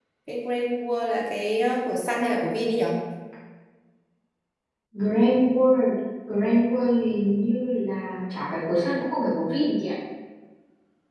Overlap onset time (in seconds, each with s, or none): none